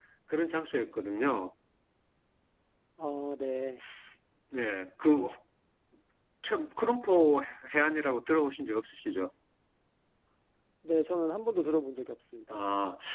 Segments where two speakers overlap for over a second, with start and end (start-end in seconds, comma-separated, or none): none